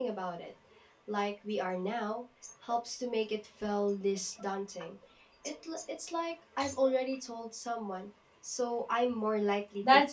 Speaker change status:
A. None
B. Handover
B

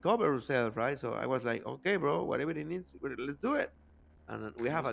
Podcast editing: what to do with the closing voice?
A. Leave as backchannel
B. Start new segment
A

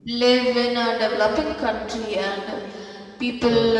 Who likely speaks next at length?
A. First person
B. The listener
A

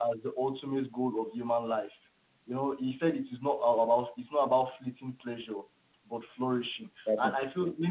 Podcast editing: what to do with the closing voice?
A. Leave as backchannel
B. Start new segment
A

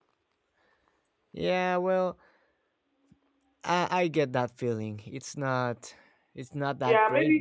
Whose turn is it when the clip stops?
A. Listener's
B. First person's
A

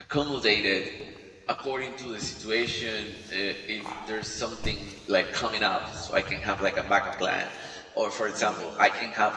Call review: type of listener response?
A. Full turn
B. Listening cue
B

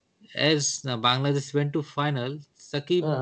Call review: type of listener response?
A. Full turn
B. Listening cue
B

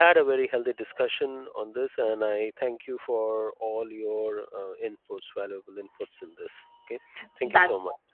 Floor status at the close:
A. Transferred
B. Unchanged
A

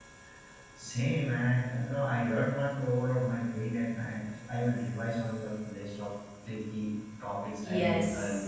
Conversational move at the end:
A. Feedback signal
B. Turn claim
B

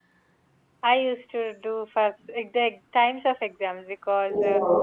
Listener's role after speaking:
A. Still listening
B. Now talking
A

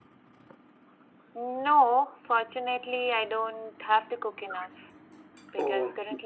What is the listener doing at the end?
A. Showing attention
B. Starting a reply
A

